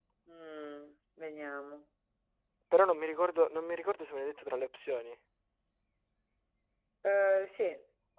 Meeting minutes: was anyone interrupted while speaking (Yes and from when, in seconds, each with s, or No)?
No